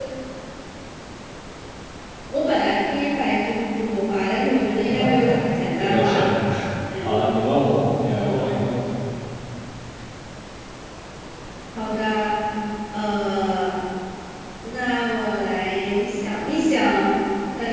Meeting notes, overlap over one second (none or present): none